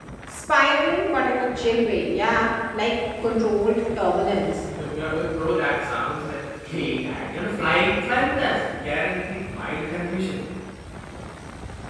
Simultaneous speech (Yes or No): No